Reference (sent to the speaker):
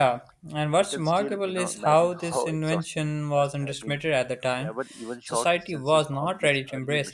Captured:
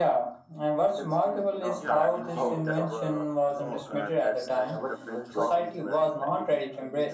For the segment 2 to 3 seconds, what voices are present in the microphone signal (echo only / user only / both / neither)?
both